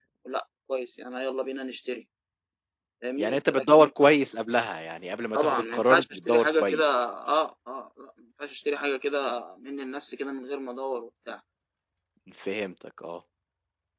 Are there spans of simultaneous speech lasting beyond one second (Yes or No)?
Yes